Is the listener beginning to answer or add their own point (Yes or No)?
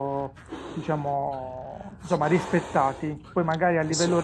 No